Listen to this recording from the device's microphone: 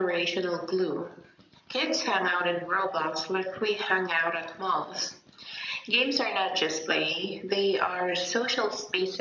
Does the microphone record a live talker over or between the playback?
No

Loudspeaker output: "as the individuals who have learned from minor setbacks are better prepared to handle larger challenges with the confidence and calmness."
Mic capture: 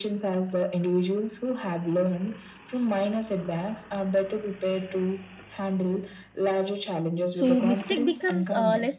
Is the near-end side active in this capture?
Yes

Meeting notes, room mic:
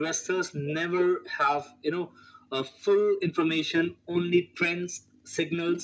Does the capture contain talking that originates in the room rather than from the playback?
No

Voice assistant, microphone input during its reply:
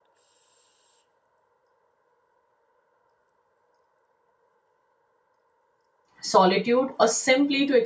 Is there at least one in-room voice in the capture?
Yes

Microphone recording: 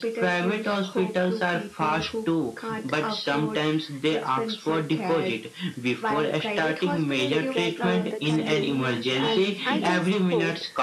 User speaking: Yes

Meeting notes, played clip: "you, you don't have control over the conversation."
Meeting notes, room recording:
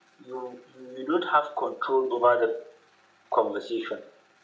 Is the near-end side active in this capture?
No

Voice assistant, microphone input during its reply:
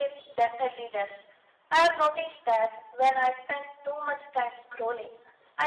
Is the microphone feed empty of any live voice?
Yes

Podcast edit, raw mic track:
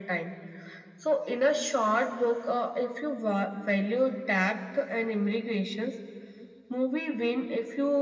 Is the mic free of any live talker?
Yes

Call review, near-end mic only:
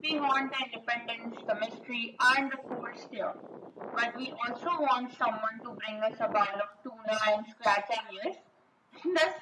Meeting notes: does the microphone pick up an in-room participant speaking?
No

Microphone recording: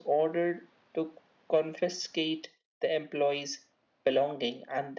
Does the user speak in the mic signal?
No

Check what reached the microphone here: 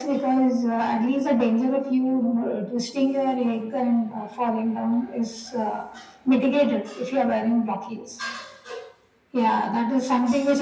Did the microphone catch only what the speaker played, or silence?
Yes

